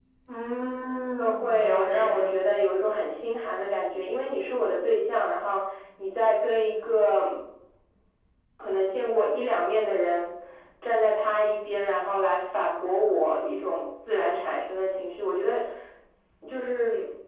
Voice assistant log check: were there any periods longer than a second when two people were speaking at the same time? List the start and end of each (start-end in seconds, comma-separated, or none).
1.2-2.5